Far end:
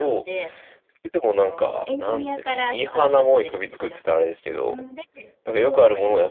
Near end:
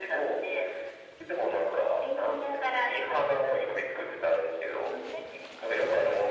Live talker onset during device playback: none

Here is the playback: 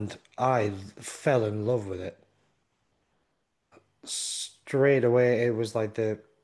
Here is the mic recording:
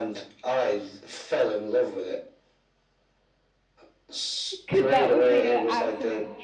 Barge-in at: 4.5 s

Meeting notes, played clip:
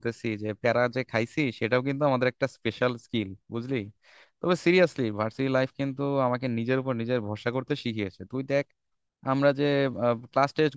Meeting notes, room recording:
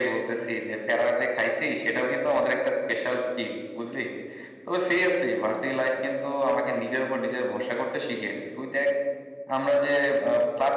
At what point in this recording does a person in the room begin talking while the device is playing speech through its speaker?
none

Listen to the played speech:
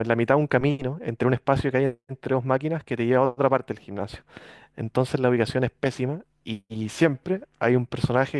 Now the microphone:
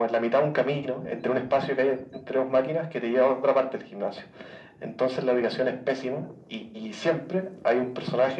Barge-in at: none

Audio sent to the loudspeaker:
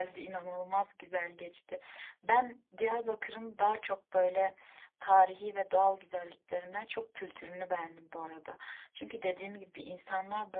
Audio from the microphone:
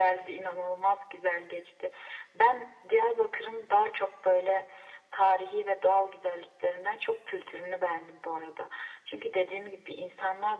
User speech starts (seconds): none

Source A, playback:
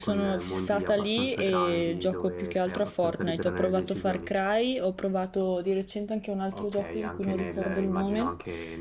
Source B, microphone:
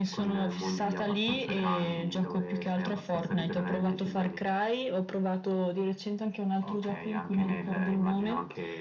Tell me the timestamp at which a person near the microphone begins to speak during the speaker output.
none

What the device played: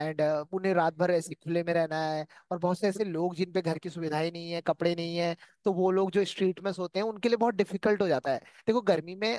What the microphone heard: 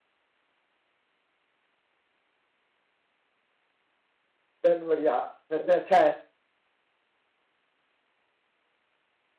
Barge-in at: 4.6 s

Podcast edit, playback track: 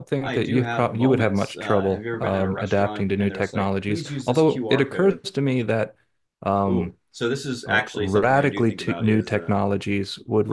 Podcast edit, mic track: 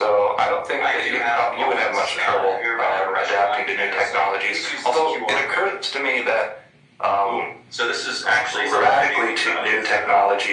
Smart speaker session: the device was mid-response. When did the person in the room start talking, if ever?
none

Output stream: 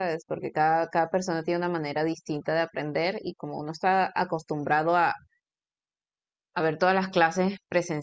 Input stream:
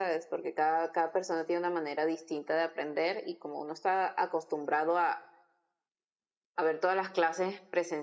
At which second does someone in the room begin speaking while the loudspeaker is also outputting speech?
none

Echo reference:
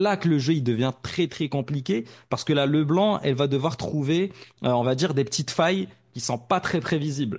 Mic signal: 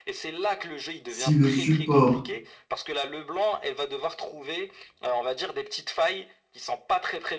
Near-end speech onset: 1.1 s

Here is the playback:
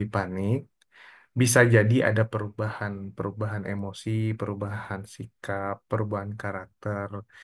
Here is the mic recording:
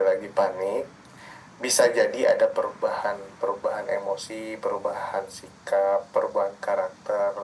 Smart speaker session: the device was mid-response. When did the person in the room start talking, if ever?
none

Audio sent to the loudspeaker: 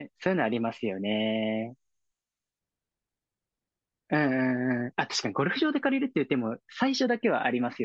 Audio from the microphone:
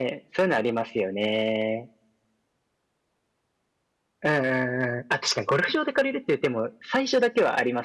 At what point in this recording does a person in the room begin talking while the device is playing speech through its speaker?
none

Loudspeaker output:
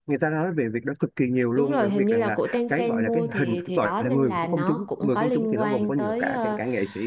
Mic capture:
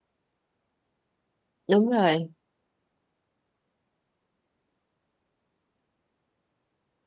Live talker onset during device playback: 1.7 s

